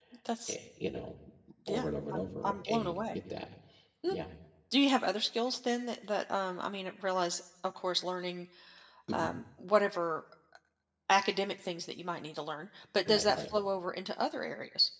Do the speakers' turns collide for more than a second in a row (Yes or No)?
Yes